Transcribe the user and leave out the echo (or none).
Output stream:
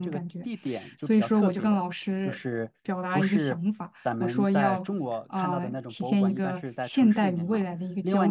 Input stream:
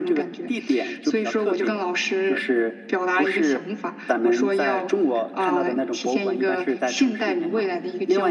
none